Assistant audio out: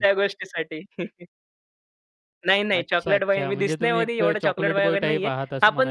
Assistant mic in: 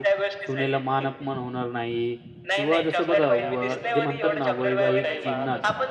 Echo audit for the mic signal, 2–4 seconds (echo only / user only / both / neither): both